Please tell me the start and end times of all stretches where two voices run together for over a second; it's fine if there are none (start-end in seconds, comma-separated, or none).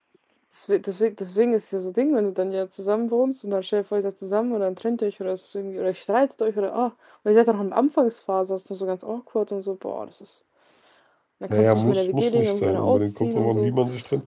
11.5-13.7